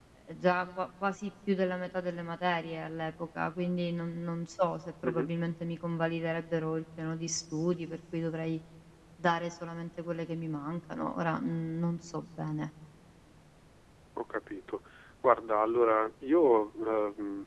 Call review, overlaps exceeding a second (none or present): none